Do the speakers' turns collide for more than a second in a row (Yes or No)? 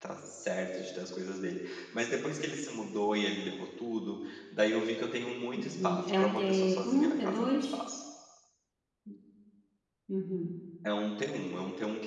Yes